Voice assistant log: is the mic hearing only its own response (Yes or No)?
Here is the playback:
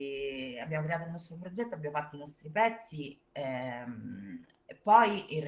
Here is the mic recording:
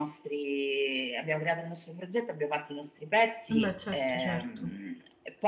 No